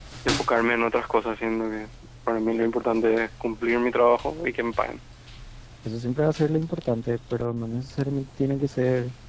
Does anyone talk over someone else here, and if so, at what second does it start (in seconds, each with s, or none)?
none